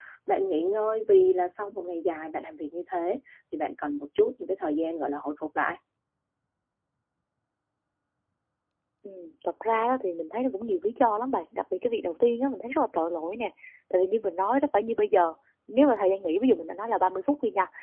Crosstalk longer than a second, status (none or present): none